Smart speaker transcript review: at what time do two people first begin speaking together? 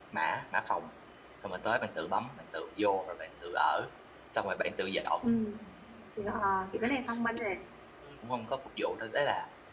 none

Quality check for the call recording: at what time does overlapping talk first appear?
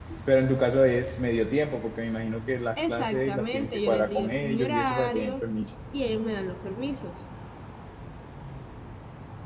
2.8 s

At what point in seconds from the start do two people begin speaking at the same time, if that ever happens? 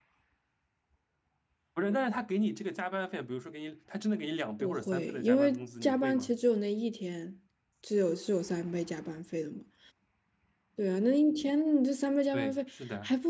4.6 s

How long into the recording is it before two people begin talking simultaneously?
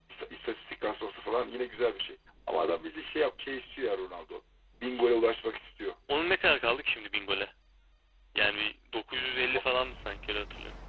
none

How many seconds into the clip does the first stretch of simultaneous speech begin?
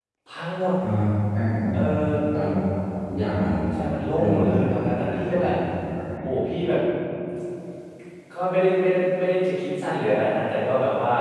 4.2 s

